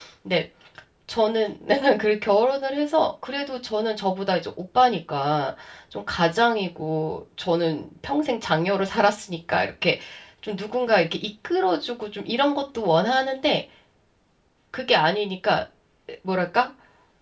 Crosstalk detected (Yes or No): No